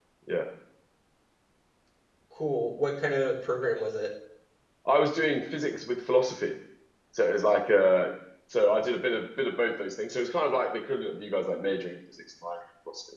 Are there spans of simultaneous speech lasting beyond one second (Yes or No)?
No